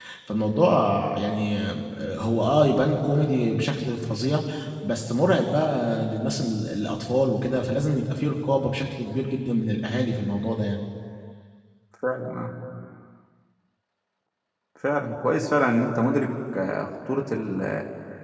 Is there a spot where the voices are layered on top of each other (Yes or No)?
No